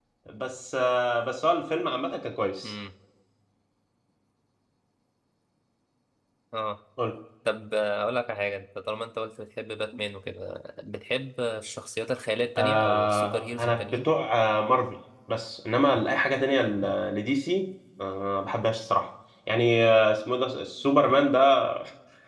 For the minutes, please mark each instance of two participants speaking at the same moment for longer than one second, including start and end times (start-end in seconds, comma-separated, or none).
12.6-14.0